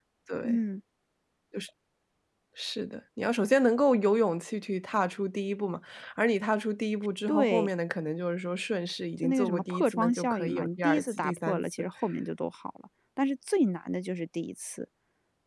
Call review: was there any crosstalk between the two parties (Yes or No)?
Yes